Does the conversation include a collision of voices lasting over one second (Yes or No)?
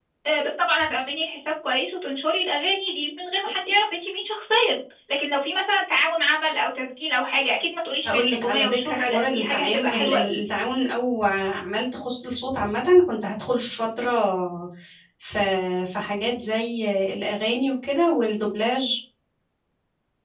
Yes